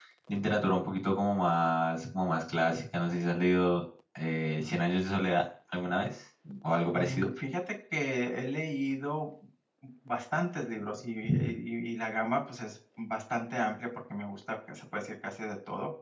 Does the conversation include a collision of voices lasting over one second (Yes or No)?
No